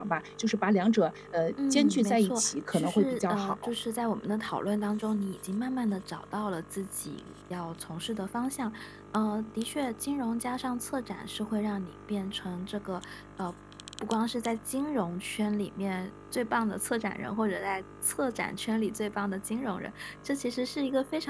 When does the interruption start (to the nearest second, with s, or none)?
2 s